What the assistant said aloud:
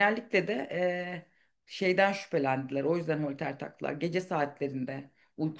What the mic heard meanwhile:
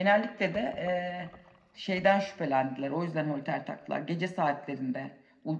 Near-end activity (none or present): none